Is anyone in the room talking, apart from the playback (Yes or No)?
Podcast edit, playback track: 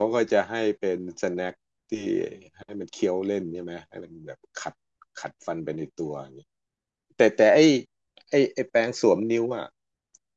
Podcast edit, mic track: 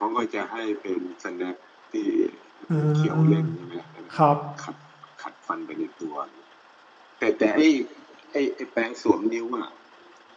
Yes